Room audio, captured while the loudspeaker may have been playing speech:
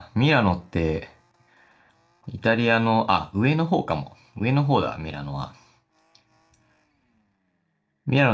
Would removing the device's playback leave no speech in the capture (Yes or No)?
No